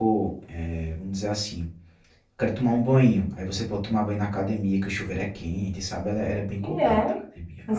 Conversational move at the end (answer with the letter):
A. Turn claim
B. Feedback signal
A